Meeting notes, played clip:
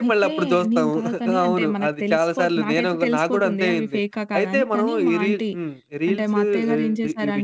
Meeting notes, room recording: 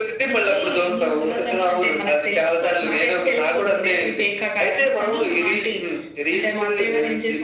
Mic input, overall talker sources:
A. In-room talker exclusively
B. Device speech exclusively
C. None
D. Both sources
B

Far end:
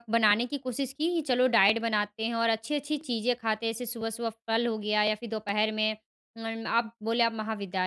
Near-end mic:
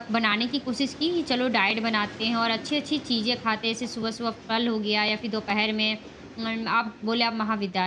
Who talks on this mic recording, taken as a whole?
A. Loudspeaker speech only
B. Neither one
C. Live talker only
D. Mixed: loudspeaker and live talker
A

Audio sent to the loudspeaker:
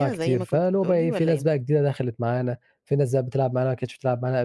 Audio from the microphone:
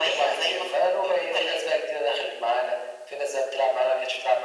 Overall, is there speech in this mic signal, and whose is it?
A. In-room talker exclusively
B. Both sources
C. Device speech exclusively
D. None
C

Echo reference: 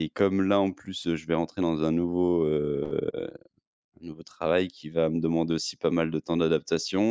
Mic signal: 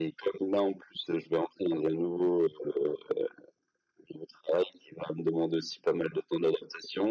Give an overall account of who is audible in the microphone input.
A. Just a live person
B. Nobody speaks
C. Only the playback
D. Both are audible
C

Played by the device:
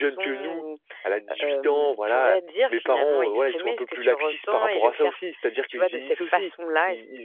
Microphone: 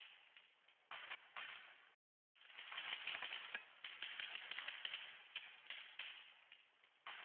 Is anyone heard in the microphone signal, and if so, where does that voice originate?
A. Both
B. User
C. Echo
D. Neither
D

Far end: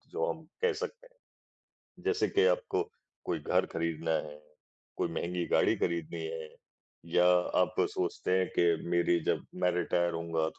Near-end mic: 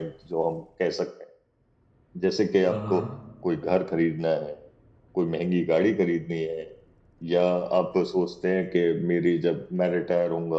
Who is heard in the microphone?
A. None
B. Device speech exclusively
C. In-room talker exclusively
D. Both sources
D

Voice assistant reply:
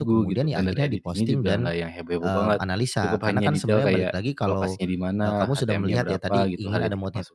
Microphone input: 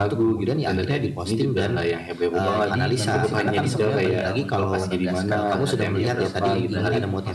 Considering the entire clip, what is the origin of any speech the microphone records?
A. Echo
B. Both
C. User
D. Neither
B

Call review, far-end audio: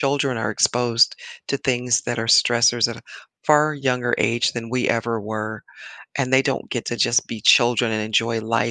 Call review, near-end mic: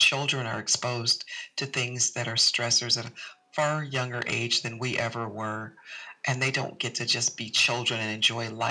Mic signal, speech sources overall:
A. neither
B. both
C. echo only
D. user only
C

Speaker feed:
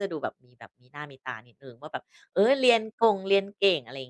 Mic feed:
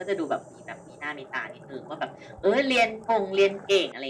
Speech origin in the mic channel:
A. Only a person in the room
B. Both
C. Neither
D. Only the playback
D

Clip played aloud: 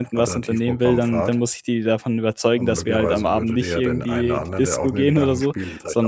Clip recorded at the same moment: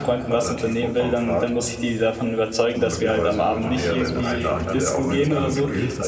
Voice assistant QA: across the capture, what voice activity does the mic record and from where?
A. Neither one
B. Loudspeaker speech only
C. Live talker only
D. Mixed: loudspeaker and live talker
D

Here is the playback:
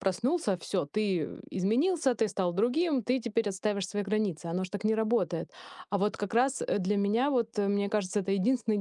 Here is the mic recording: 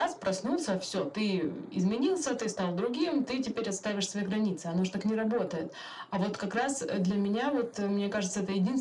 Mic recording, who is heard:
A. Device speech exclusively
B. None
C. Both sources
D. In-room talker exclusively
A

